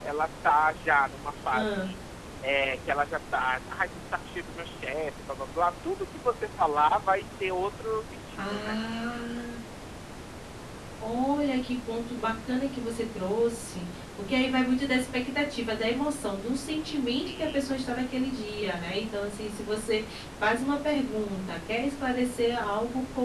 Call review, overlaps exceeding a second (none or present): none